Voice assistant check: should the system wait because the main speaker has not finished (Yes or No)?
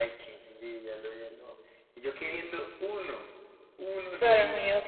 No